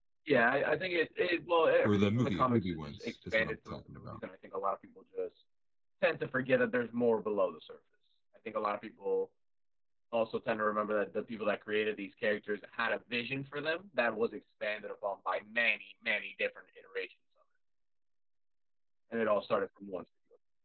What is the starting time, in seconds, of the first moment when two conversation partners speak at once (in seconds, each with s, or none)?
1.8 s